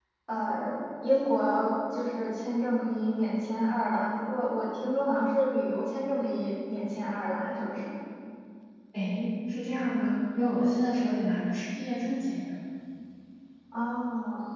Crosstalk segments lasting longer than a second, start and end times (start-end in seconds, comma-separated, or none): none